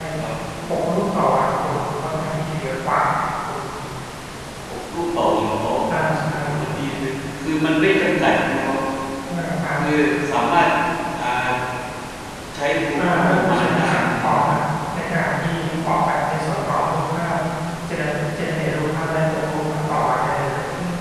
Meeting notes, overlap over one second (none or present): present